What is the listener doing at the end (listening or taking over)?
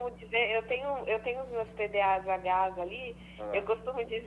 listening